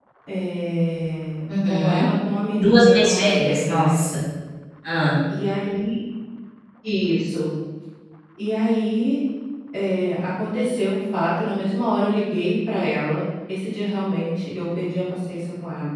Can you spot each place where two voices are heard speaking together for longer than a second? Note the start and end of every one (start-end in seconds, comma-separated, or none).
2.5-4.0